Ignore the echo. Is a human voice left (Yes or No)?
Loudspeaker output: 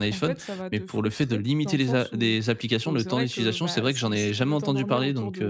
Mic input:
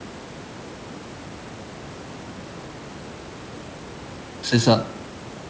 Yes